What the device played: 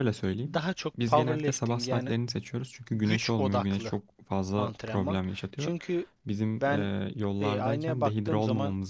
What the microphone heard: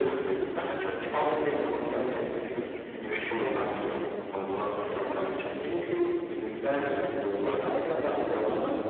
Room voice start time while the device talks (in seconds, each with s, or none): none